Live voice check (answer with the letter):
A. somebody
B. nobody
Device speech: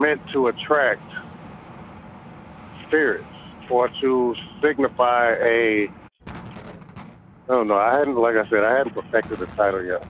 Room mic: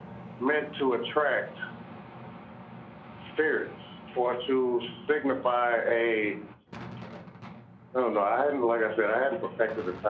B